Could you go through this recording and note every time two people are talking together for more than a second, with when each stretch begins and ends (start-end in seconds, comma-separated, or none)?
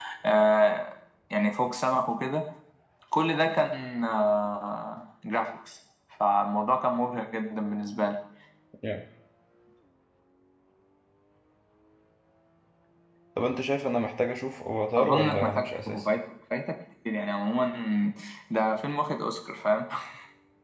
15.0-16.2